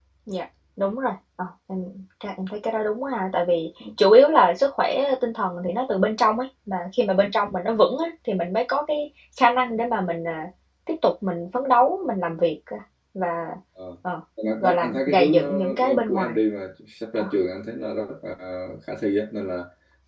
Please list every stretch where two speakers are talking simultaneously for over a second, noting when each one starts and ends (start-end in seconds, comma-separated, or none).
14.6-16.3